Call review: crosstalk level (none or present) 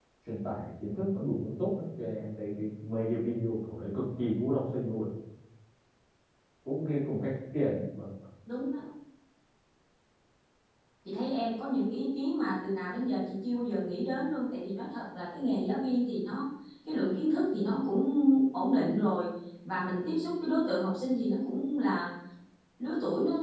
none